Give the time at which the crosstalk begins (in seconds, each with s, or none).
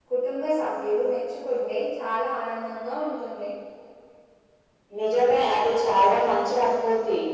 none